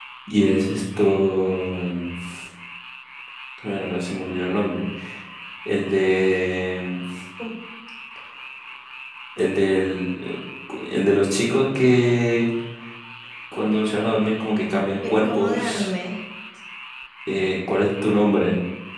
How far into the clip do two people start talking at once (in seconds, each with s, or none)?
14.4 s